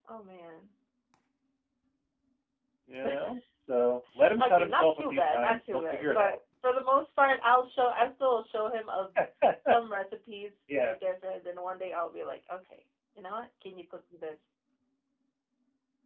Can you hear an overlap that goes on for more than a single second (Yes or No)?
Yes